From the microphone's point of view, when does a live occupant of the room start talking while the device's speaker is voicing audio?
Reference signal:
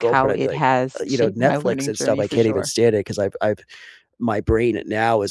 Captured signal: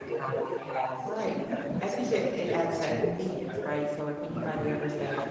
1.0 s

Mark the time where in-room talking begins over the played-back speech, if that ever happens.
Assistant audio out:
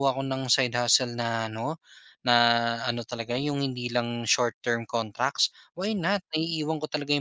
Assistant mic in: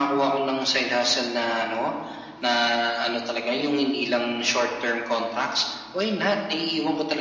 none

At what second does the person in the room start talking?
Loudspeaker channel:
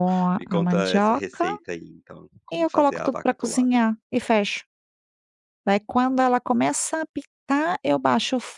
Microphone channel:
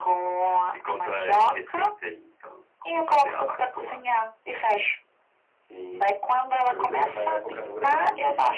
5.6 s

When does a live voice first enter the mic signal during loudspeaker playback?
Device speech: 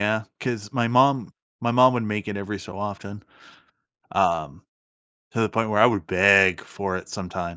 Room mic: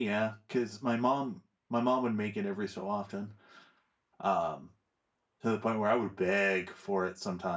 none

